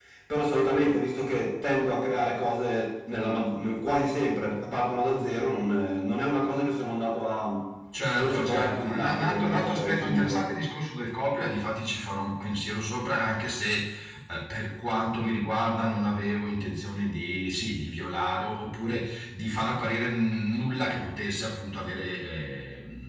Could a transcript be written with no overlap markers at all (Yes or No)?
No